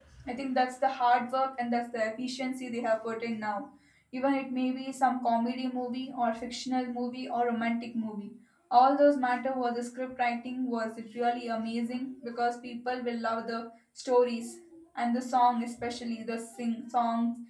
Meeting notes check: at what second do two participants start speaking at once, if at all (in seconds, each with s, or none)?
none